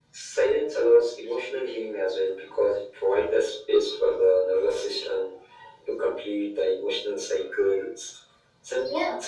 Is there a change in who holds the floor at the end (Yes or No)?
No